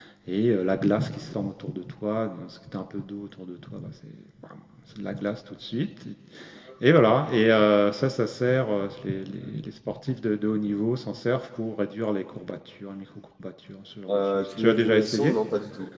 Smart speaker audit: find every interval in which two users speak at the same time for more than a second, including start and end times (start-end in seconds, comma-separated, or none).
14.1-15.4